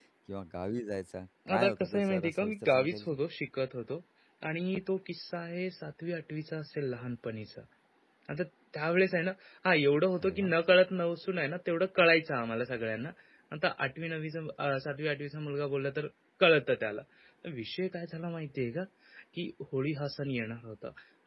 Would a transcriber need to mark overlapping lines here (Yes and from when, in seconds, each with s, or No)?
Yes, from 1.5 s